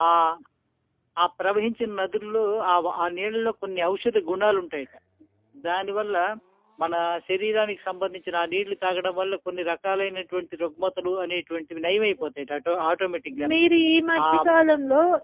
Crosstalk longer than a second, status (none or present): none